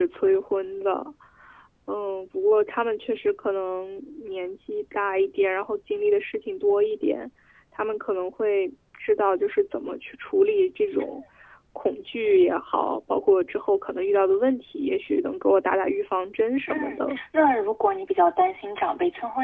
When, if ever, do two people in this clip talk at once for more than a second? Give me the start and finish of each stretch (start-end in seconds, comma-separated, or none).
none